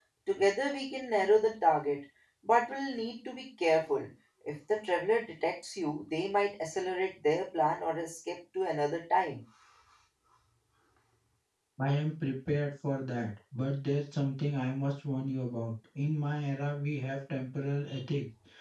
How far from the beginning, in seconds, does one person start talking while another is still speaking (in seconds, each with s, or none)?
none